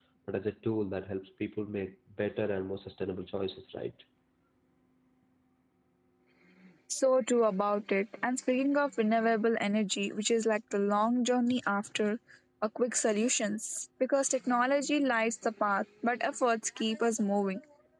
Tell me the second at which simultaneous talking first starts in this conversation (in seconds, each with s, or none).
none